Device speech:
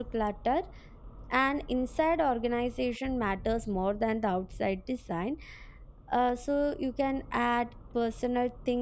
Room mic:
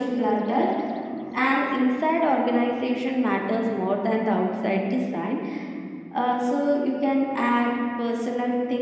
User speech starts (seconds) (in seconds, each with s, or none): none